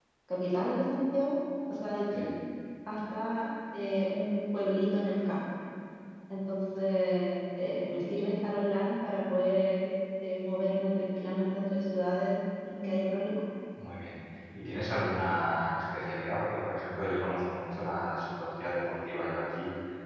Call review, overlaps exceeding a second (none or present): none